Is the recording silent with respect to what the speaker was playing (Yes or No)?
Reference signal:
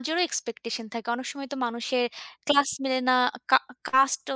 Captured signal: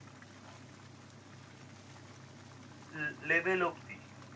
Yes